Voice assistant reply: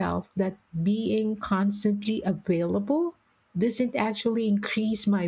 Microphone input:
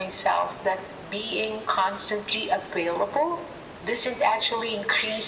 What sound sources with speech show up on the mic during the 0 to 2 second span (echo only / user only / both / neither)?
echo only